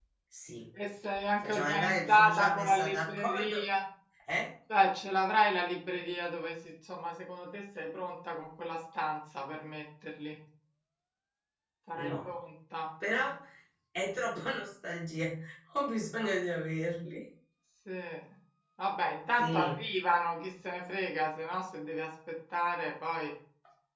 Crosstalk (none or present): present